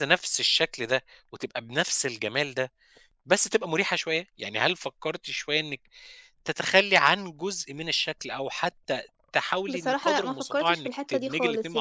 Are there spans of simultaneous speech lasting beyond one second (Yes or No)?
Yes